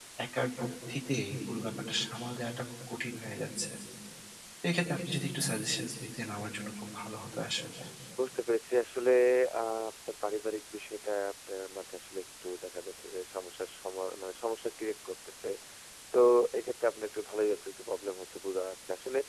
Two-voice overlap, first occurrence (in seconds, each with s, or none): none